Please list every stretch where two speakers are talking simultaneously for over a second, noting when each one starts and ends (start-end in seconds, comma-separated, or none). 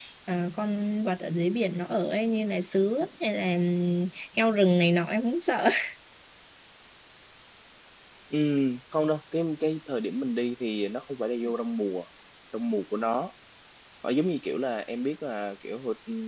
none